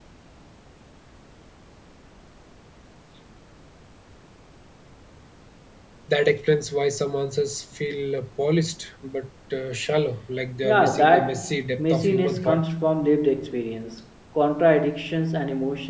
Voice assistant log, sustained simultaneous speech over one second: present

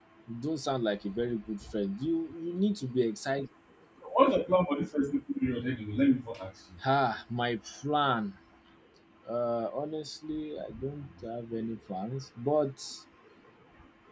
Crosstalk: none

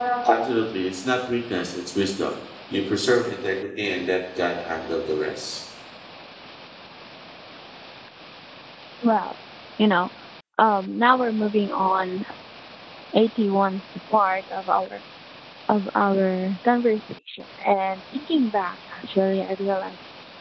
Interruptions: none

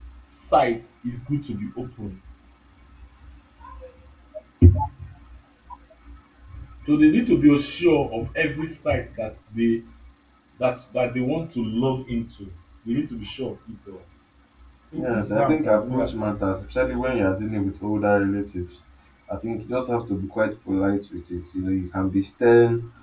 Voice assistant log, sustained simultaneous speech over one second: present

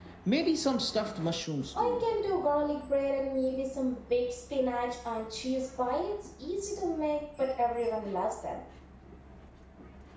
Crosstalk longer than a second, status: none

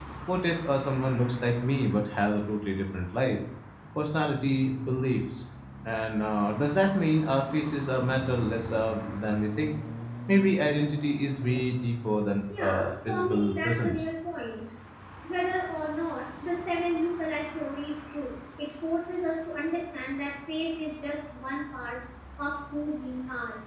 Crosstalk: present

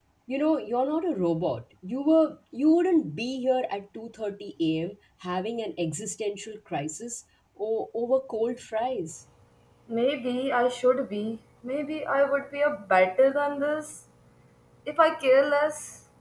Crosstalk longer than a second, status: none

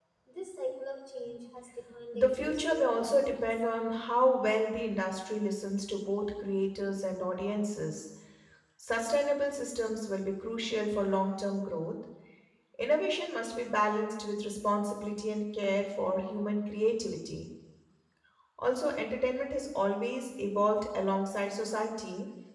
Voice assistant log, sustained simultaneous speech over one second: present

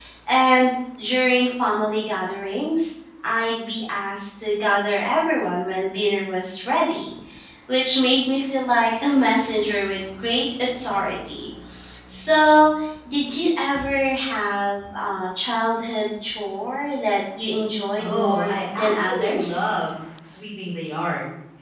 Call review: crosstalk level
present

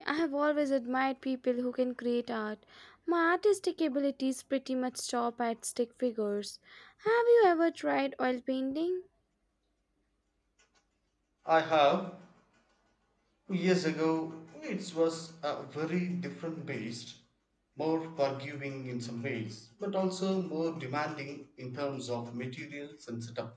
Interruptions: none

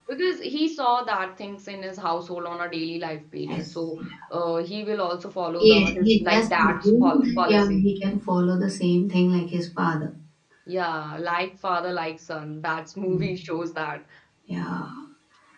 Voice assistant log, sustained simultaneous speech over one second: present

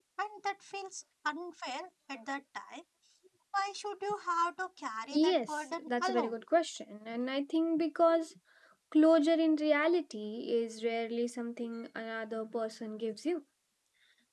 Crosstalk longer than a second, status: present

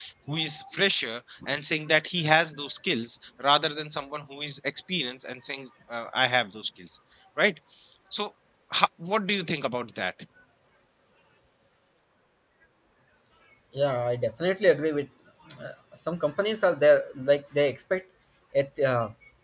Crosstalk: none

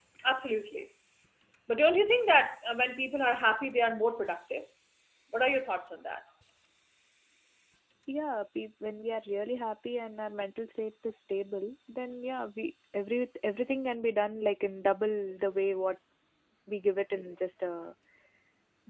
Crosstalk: none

